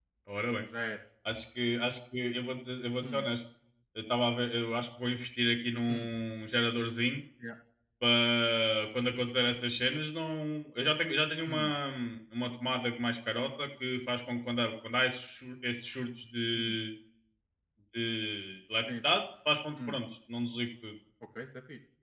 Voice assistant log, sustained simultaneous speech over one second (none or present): none